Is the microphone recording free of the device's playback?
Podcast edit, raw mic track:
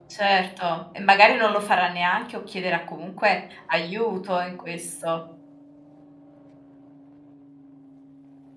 Yes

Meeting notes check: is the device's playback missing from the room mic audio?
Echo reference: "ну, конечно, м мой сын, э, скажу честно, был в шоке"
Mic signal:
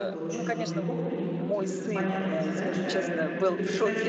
No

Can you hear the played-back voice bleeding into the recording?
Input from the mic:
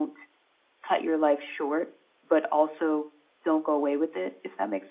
No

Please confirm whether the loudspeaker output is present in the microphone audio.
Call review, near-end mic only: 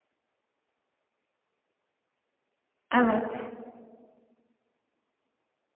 No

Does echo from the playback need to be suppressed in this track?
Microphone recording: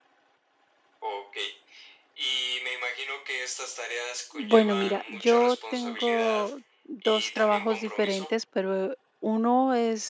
Yes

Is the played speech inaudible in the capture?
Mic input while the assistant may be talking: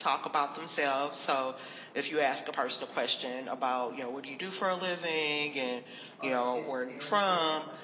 No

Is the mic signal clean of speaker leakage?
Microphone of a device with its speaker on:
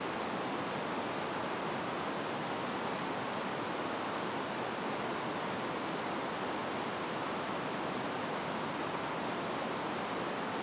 Yes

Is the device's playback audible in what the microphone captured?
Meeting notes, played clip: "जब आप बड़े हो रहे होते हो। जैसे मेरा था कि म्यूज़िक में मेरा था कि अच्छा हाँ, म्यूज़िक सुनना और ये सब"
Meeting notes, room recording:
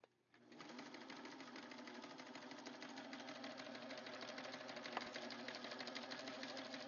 No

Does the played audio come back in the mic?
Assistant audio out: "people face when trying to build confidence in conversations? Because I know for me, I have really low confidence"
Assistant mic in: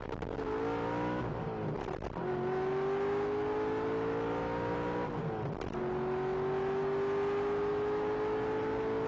No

